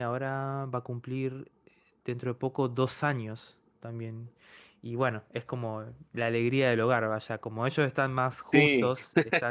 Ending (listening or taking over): listening